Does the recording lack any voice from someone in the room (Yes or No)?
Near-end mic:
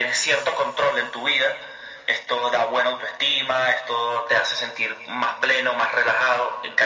Yes